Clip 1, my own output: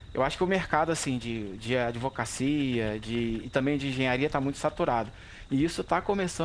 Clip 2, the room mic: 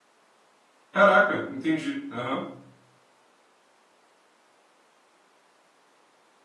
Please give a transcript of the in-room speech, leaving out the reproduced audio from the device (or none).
Caraca, entendi. Aham.